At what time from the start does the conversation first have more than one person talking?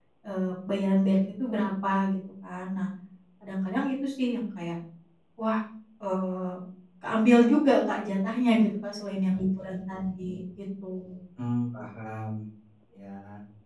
none

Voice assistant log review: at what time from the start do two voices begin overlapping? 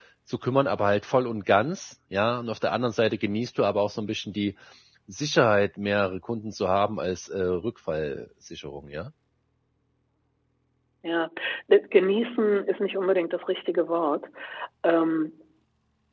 none

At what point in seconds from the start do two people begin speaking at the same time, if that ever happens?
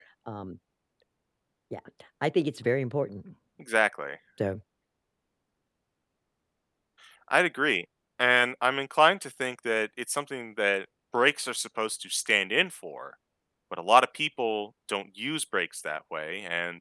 none

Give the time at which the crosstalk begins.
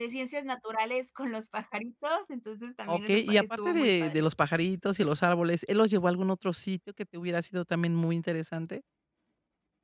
2.9 s

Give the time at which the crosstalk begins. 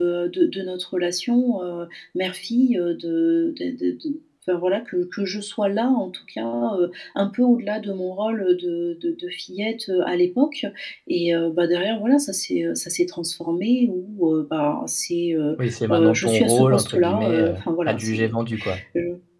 15.6 s

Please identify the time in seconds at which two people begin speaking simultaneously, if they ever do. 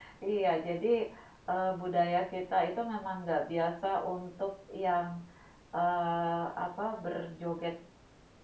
none

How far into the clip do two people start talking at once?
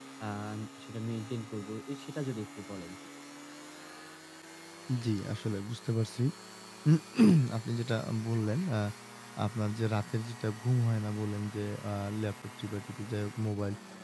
none

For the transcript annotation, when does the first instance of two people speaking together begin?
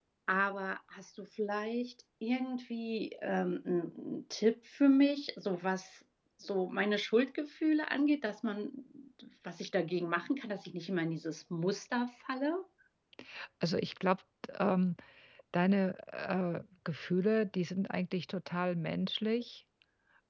none

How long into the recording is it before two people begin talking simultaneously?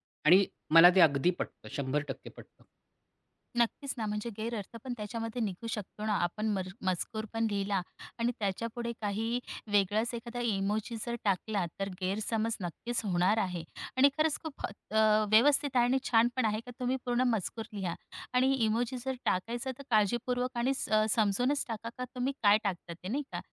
none

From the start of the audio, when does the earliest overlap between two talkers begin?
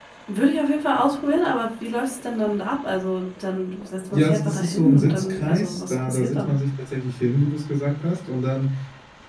4.1 s

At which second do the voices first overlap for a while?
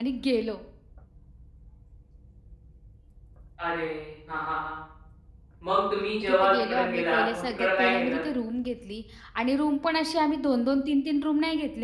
6.3 s

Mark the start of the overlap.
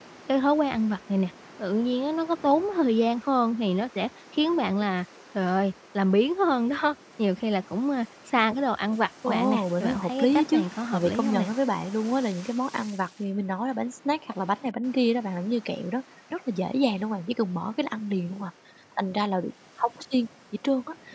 9.3 s

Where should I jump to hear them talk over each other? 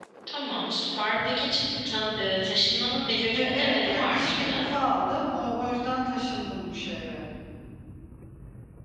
3.3 s

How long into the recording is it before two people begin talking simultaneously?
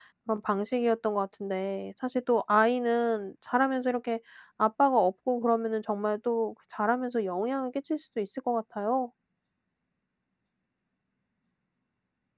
none

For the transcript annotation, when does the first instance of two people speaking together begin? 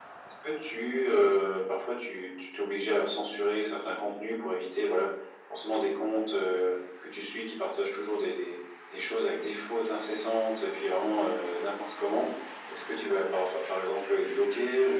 none

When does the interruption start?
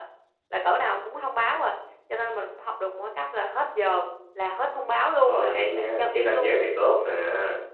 5.2 s

